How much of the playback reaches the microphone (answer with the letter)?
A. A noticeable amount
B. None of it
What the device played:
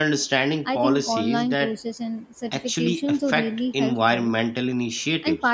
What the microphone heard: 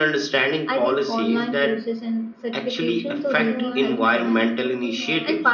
A